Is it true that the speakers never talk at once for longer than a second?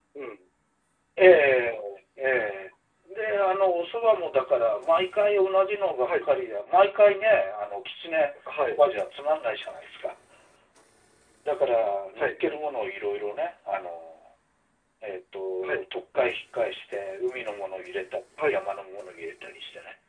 Yes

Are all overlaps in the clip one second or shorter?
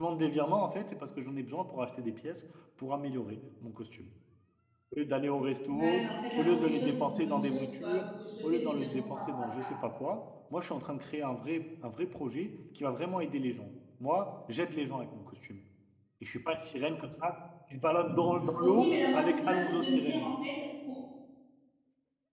No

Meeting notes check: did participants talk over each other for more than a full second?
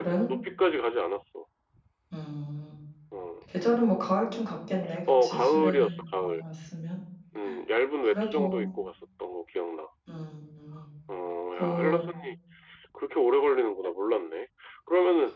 Yes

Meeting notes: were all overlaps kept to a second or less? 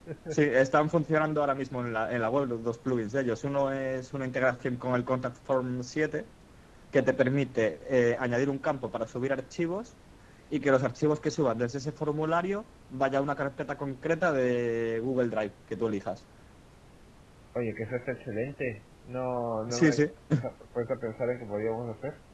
Yes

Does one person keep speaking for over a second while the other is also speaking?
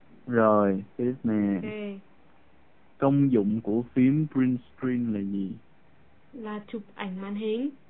No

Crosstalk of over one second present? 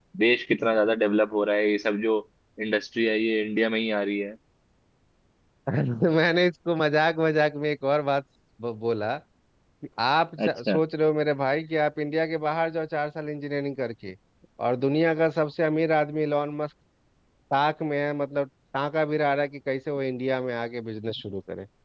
No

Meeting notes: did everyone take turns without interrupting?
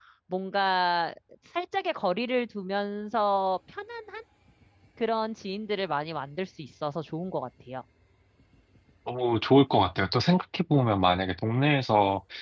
Yes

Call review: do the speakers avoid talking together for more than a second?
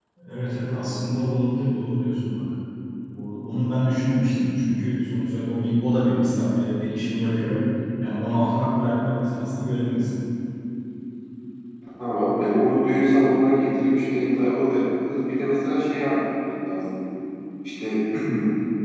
Yes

